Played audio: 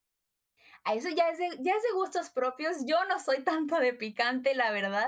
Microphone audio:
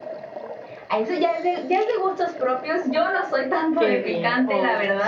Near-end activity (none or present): present